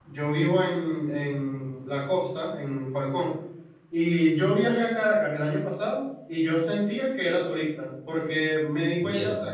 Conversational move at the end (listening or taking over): listening